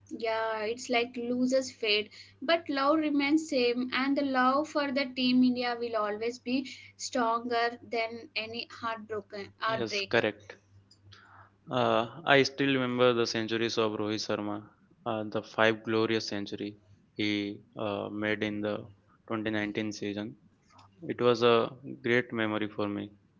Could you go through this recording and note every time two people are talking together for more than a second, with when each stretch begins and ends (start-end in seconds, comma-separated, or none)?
none